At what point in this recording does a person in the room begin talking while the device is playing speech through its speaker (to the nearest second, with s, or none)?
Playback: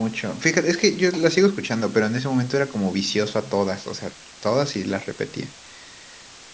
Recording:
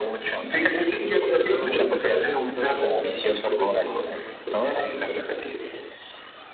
1 s